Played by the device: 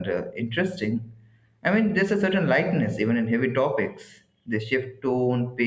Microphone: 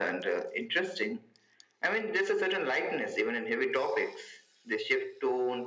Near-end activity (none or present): none